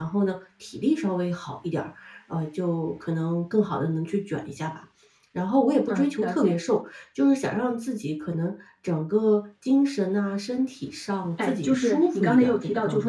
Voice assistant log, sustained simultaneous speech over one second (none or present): present